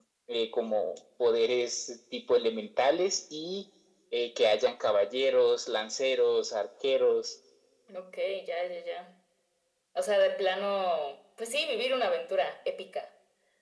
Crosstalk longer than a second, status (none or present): none